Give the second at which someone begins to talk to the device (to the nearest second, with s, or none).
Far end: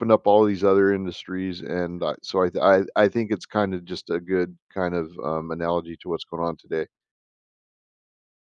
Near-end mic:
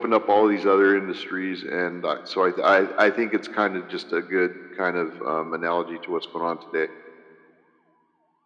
none